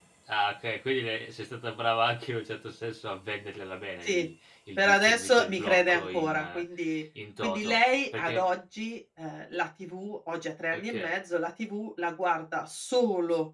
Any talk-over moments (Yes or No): Yes